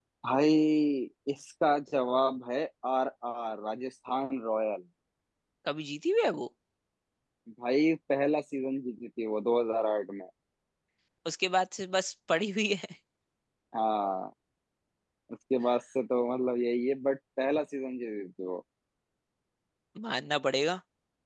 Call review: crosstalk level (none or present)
none